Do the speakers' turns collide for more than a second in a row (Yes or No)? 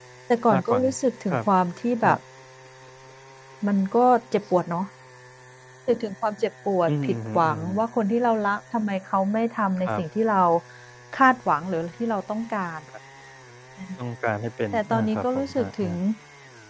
Yes